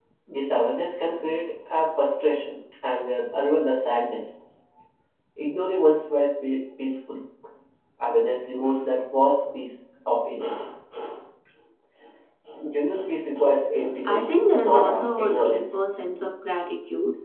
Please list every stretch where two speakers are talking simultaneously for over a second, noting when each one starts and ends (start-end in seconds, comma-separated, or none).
14.0-15.8